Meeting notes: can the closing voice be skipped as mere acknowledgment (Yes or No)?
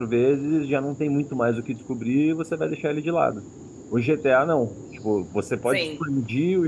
Yes